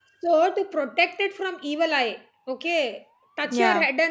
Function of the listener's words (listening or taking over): listening